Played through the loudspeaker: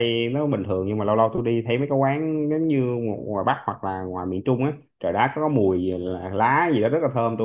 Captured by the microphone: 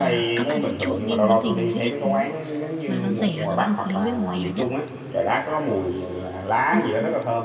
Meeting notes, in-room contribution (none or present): present